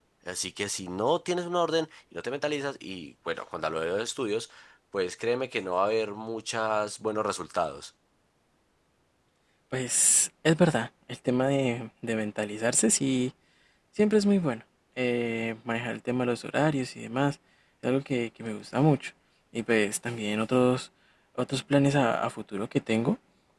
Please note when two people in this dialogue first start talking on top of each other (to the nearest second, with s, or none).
none